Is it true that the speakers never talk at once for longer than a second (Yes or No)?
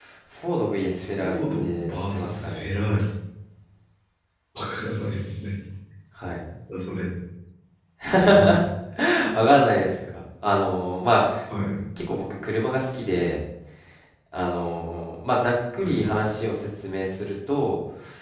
No